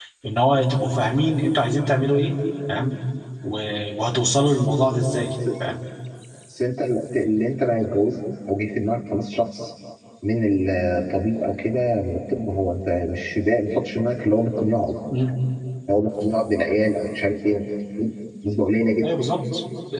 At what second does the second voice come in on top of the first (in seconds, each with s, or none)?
none